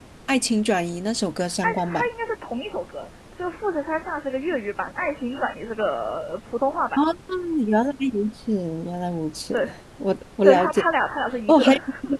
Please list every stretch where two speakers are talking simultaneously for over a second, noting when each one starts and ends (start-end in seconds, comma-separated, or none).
none